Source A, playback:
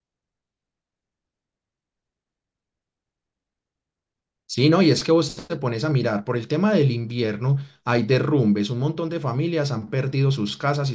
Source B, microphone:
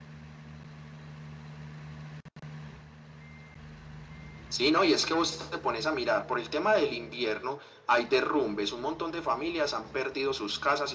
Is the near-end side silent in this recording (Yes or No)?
Yes